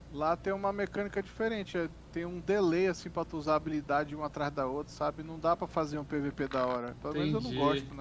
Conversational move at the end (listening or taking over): taking over